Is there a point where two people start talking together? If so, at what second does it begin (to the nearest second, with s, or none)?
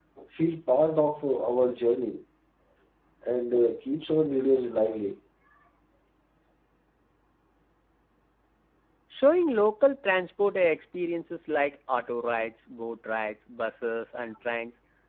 none